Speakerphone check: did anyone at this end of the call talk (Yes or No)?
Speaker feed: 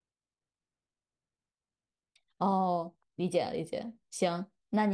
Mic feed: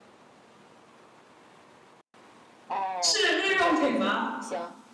Yes